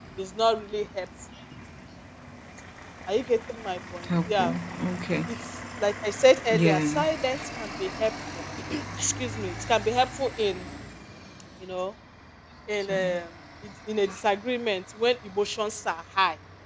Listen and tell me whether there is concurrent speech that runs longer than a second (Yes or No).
No